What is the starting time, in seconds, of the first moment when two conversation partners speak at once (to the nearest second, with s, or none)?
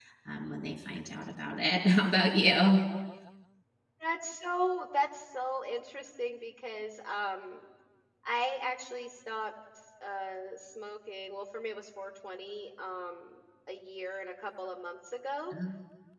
none